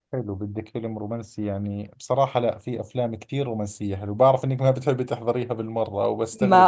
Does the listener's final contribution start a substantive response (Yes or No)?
Yes